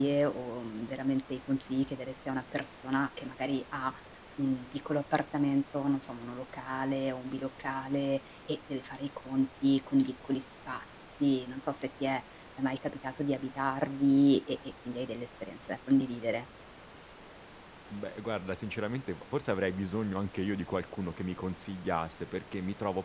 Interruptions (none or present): none